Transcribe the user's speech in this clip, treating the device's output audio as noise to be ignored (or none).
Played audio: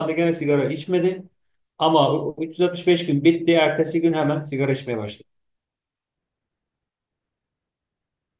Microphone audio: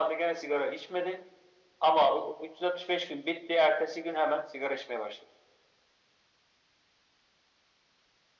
none